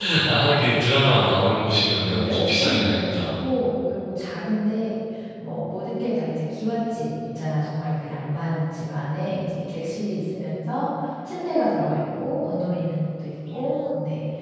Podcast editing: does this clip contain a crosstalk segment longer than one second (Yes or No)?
Yes